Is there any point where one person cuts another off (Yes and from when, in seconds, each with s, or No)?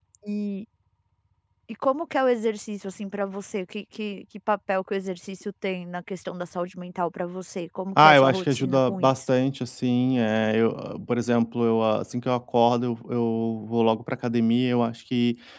Yes, from 8.0 s